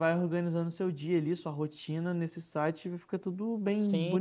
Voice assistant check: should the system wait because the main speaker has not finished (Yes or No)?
No